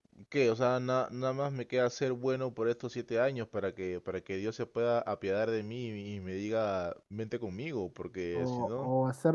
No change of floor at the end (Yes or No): No